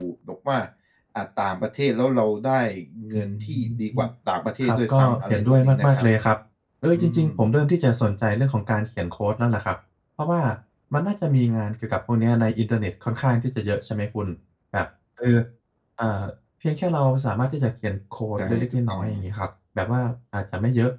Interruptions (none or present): present